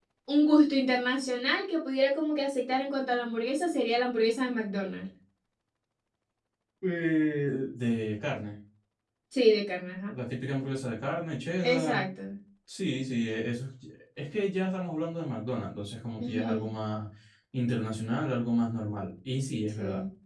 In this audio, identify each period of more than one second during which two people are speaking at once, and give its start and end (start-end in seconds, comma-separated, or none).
none